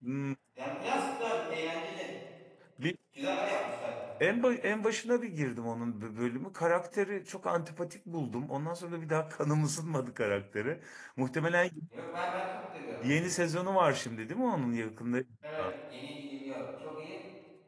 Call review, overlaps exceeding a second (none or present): none